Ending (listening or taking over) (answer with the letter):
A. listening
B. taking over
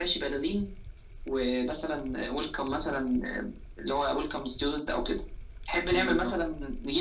A